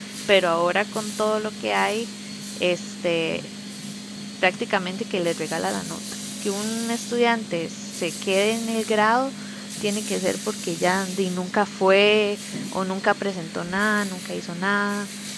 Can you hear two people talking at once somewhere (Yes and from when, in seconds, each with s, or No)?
No